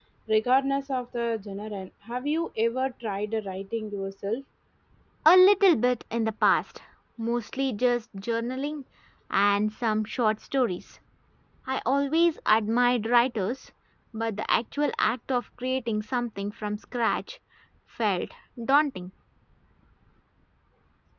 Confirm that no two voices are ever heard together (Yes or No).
Yes